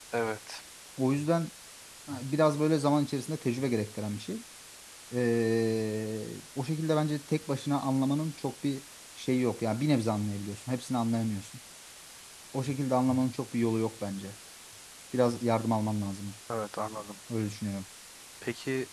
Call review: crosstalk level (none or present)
none